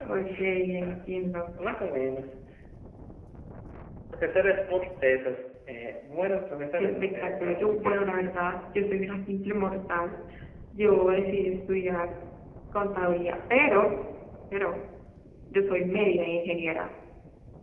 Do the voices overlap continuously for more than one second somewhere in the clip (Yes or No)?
Yes